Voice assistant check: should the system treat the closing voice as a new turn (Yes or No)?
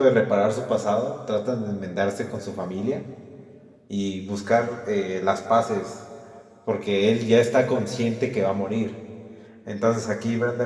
No